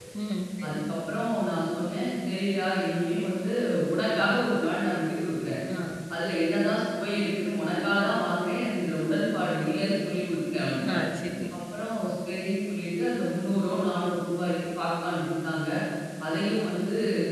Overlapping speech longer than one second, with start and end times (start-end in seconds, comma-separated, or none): none